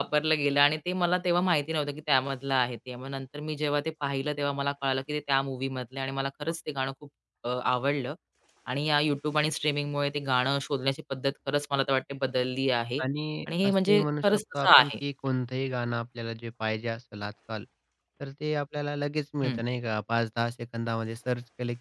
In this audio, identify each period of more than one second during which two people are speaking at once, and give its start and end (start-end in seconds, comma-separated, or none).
13.6-14.9